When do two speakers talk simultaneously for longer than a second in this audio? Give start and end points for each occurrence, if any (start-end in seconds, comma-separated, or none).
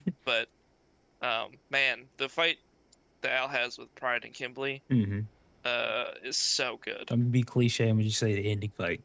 none